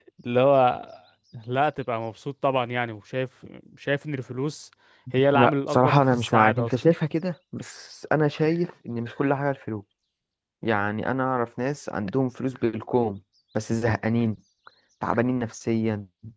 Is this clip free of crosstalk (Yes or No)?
No